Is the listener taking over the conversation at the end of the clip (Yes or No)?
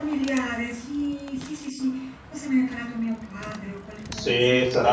Yes